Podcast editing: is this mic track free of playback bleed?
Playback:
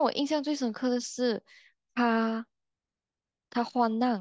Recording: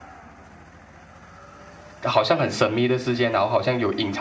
Yes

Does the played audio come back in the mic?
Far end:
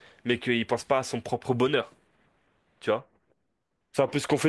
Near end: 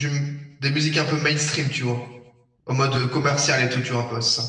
No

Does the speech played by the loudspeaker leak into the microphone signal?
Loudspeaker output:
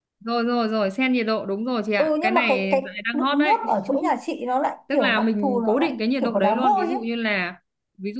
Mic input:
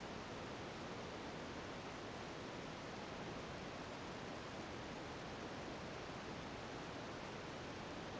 No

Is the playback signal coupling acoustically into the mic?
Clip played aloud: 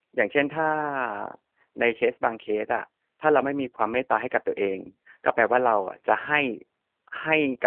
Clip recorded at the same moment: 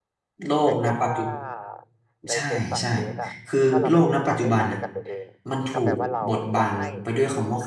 Yes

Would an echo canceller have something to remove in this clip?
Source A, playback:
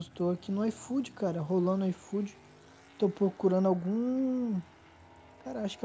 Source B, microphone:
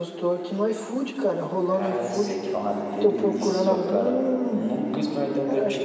Yes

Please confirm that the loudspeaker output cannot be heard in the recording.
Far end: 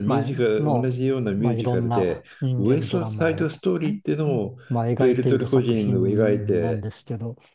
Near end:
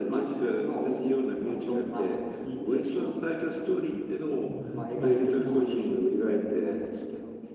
No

